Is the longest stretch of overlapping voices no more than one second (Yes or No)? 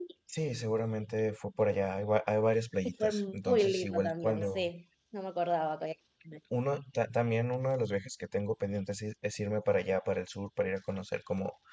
No